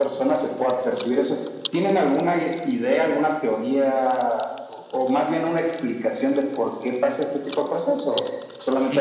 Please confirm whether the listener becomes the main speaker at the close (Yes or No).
Yes